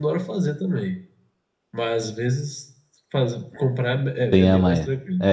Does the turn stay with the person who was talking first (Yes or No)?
No